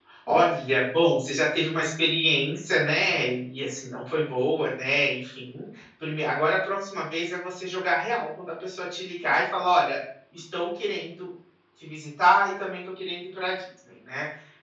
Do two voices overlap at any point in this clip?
No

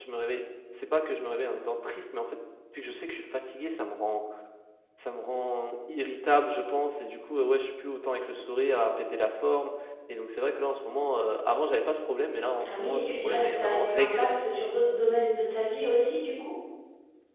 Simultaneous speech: Yes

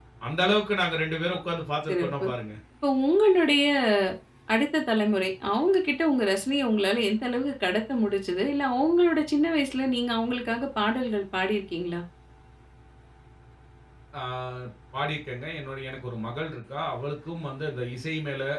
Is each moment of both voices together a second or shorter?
Yes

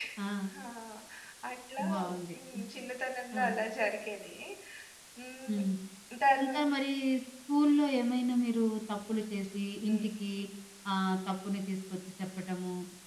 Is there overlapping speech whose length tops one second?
No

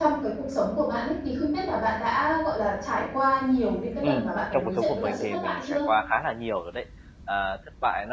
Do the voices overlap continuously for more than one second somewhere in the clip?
Yes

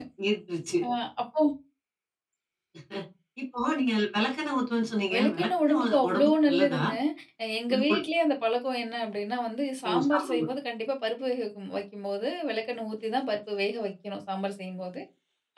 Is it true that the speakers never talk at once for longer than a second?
No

